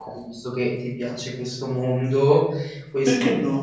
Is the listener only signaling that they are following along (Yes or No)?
Yes